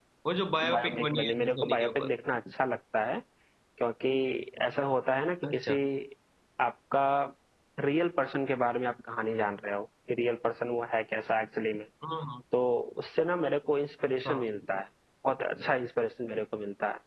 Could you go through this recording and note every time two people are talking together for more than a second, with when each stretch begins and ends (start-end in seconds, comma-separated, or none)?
0.7-2.1